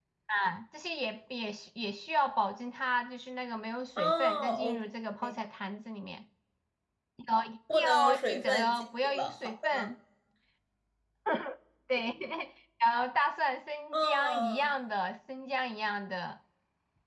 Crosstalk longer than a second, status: present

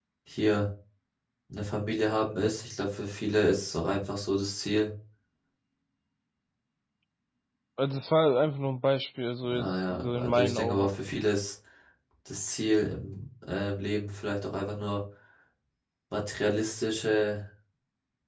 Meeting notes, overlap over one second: present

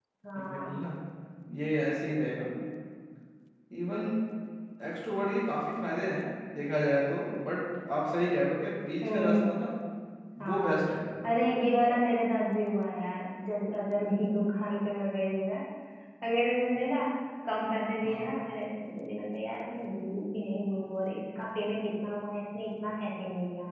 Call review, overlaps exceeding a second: none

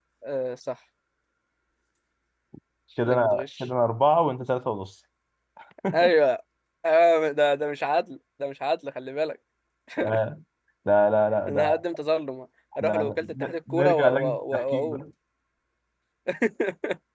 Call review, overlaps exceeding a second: present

